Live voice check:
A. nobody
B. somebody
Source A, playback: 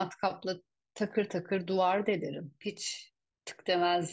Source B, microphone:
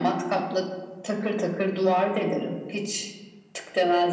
A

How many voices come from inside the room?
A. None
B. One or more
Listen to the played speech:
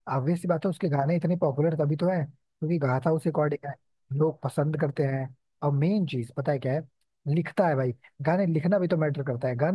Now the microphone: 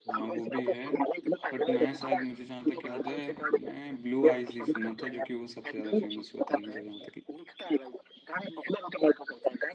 B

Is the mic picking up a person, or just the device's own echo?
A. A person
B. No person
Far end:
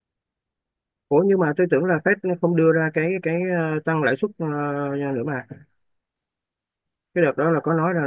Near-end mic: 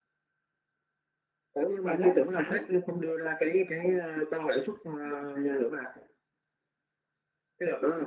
A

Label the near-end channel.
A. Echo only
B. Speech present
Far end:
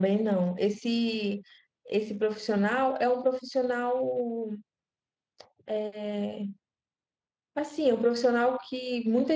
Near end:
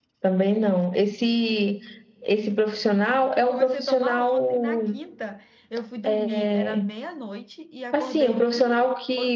B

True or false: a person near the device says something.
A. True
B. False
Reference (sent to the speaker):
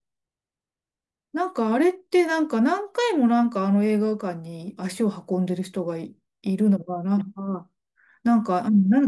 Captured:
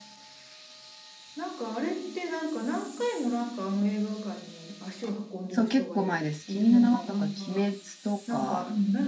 A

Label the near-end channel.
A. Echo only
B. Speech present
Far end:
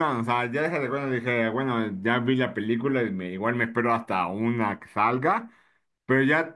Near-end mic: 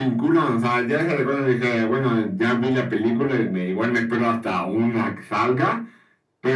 A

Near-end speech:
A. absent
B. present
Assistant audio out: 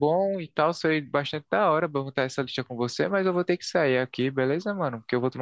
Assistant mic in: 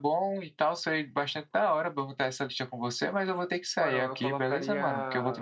B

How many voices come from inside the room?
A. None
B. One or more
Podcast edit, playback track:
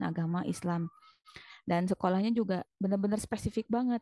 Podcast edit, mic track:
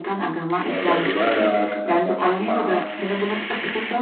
B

